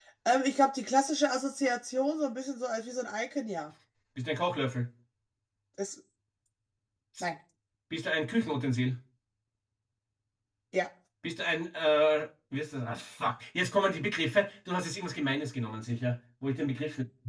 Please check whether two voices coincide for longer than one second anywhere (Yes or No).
No